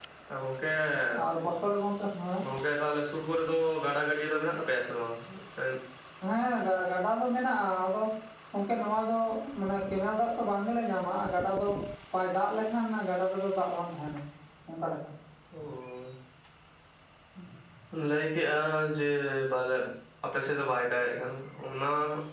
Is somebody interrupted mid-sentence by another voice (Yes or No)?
No